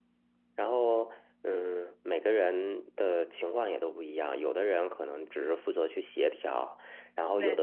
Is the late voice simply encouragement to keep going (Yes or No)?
Yes